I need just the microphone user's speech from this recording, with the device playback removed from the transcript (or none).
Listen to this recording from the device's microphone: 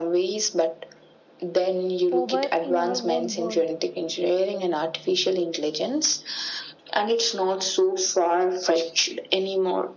over in our own world.